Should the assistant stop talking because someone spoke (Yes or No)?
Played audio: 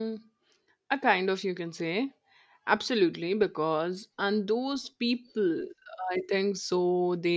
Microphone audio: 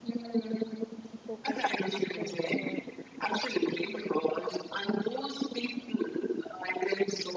Yes